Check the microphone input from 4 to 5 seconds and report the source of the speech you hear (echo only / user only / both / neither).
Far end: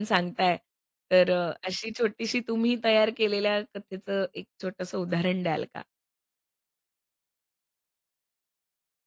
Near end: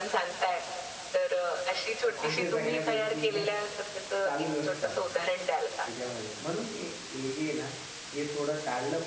both